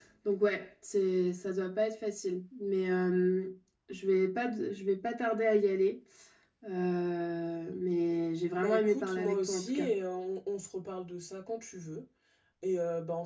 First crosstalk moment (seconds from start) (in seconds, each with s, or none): 8.6 s